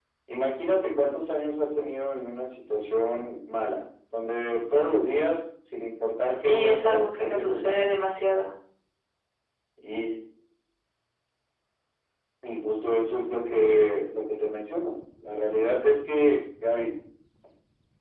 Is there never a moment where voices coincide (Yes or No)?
No